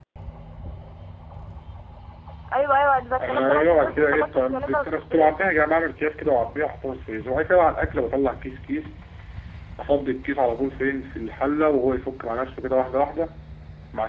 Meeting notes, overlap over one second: present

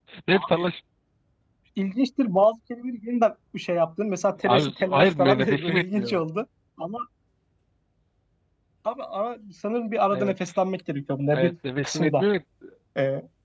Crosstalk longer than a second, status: present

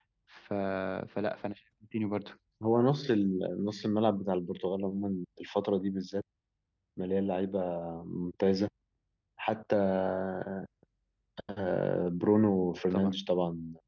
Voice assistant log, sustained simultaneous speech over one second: none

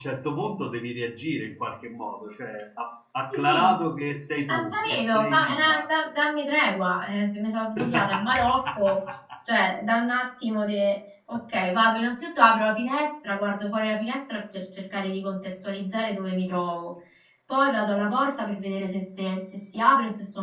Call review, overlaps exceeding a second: present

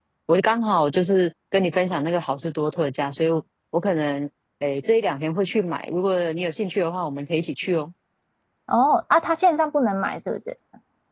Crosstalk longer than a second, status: none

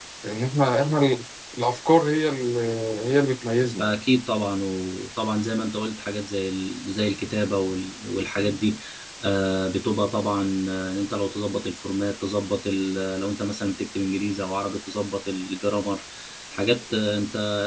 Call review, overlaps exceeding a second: none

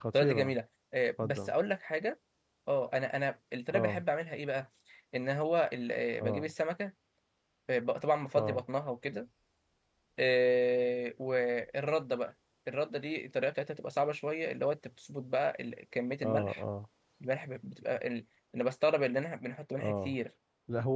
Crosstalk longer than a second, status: none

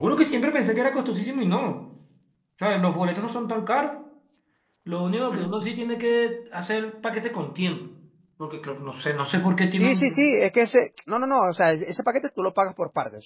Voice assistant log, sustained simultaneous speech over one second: none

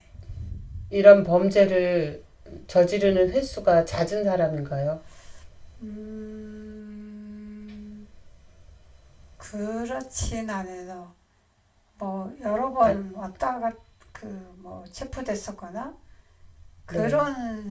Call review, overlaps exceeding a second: none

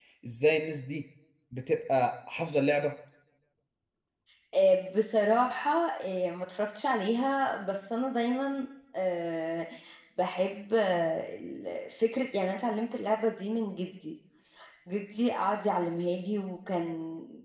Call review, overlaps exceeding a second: none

